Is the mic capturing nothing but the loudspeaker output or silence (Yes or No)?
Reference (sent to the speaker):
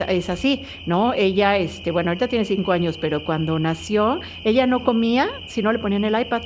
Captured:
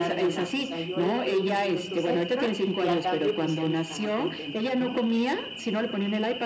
No